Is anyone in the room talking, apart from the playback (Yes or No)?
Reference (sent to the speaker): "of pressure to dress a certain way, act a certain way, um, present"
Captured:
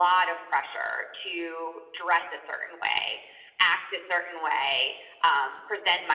No